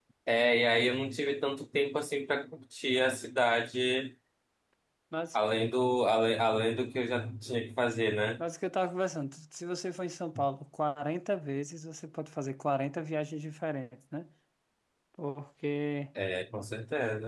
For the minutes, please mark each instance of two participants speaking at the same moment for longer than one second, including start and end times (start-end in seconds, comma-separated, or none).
none